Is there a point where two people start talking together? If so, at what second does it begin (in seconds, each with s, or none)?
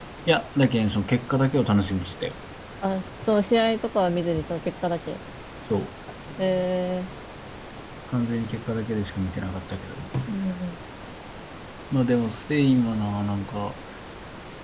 none